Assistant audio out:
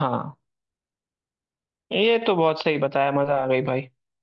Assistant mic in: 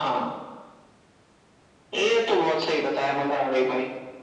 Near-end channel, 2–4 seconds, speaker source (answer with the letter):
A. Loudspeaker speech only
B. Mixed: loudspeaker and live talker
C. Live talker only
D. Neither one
A